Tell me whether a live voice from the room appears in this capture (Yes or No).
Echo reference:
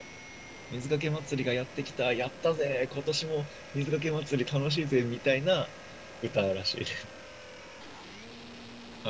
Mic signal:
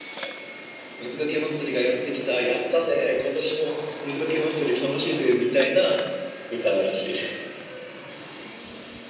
No